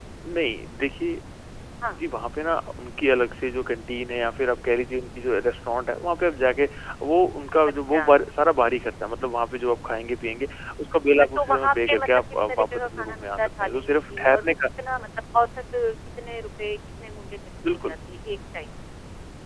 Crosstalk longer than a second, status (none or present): present